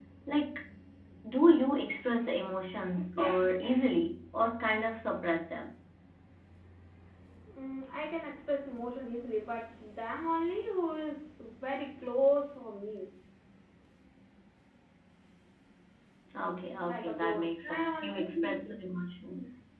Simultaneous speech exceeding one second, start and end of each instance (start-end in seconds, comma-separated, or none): 16.8-18.7